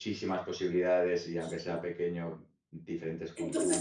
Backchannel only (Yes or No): No